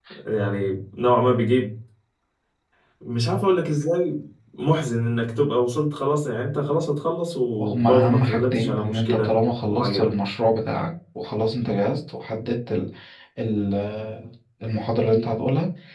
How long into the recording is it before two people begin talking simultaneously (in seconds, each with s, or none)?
7.6 s